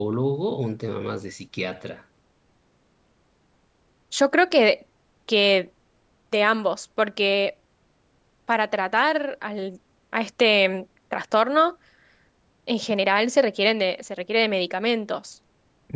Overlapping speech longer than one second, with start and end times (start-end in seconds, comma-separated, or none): none